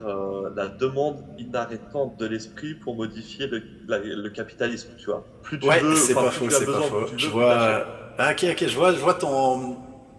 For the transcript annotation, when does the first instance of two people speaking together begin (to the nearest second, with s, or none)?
6 s